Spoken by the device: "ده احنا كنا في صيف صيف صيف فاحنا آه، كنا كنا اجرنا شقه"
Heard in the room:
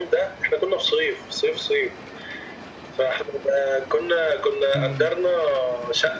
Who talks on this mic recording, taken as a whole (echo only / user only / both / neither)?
both